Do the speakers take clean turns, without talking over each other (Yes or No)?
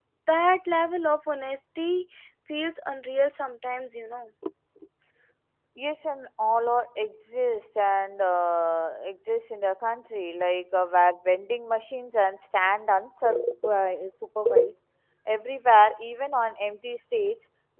Yes